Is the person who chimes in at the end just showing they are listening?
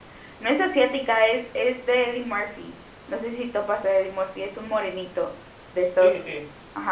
No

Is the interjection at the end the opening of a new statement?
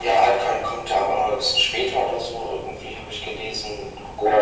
Yes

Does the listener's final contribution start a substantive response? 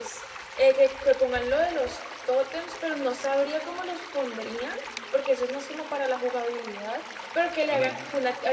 No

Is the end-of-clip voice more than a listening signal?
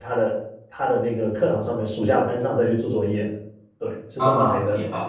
Yes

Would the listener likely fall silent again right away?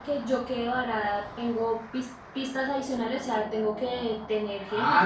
No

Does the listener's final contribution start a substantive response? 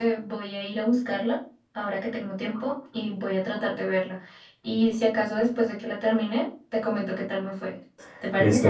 Yes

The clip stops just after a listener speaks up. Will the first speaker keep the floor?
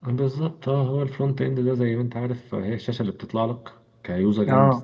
Yes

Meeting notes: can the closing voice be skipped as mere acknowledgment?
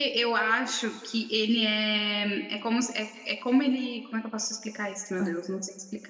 Yes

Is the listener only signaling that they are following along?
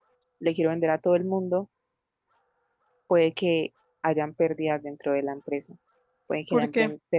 Yes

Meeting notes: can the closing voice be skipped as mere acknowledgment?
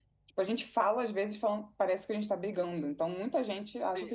No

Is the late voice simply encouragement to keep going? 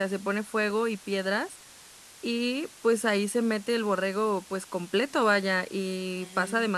Yes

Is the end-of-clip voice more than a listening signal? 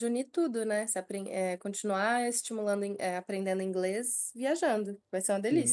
Yes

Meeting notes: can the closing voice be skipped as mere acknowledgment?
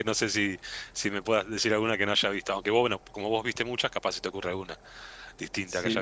No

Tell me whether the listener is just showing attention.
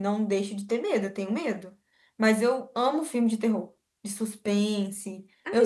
No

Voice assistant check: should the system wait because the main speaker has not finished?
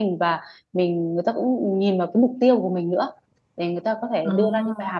Yes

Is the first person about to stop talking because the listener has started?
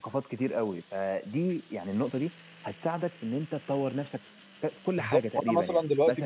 Yes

